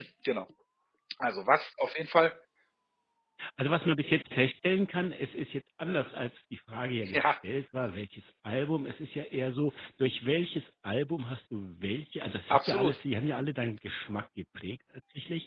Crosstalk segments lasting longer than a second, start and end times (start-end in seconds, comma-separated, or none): none